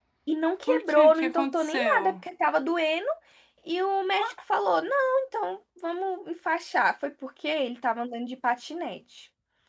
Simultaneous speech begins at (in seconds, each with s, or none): 0.7 s